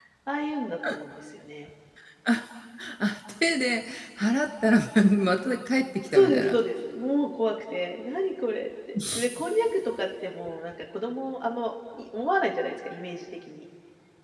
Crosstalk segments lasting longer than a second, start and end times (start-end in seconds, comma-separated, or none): none